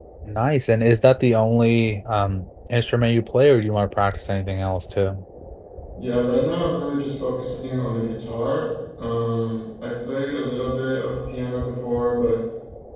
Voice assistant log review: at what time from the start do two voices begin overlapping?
none

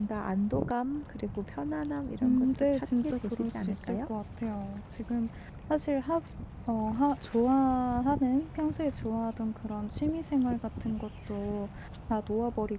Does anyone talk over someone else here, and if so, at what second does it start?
2 s

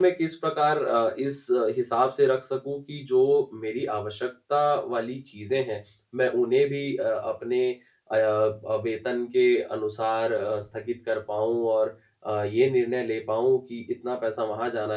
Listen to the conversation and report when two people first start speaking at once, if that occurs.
none

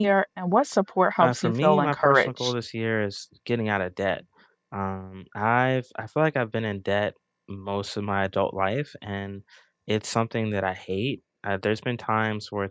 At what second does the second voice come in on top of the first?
1 s

